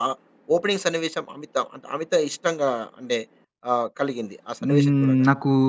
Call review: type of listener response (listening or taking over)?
taking over